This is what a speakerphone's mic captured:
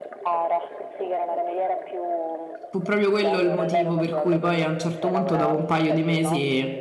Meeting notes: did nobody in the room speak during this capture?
No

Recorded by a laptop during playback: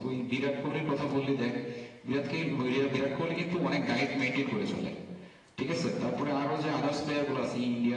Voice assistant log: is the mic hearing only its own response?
Yes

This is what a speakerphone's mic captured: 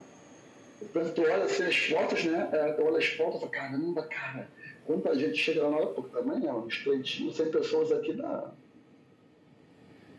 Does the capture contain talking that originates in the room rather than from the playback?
No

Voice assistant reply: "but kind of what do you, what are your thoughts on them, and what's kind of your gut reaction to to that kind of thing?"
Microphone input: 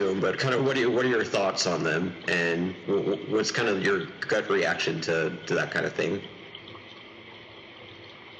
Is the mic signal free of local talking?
Yes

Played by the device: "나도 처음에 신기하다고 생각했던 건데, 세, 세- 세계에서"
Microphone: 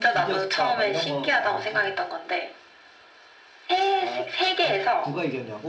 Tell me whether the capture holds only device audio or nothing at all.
No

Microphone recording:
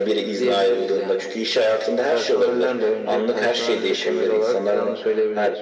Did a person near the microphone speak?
No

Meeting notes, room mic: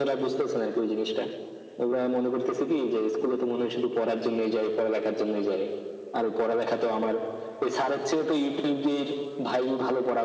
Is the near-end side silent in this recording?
Yes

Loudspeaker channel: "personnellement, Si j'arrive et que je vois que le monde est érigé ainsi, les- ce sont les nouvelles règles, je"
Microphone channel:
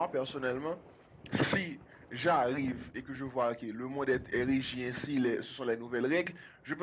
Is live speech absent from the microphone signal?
Yes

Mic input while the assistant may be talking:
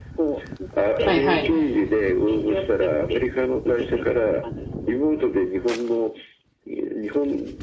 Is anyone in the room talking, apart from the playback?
Yes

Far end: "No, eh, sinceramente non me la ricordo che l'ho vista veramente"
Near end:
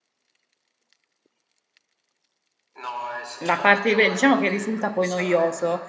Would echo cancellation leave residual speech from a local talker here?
Yes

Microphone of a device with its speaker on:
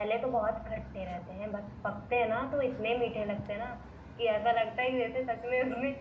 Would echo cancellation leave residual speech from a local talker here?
Yes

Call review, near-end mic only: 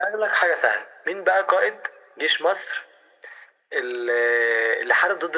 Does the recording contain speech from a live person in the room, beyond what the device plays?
No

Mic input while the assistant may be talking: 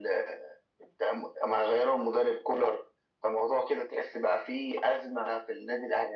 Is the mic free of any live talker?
Yes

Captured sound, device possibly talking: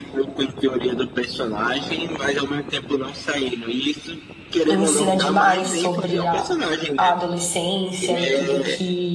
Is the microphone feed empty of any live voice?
No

